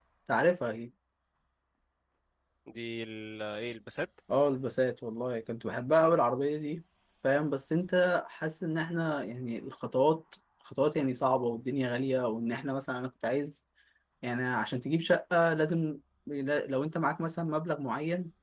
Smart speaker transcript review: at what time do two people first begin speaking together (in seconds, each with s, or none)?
none